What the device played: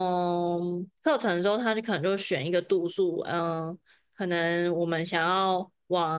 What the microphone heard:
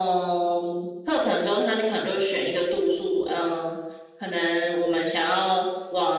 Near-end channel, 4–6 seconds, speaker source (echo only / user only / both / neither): echo only